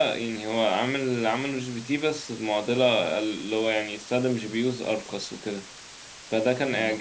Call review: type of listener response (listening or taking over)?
listening